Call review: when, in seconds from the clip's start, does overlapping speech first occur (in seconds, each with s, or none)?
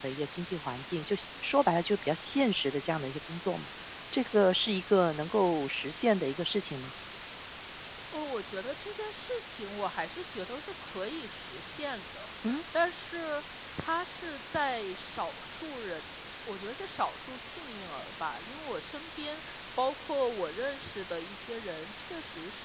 none